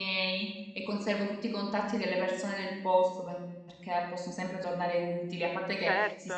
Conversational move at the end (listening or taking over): listening